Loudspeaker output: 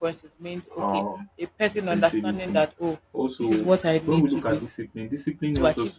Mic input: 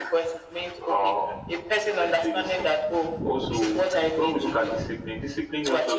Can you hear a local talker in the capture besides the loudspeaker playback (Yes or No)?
No